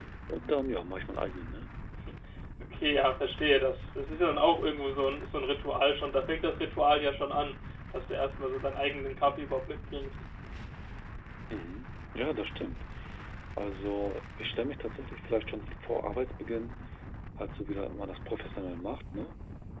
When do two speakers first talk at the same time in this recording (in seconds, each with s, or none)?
none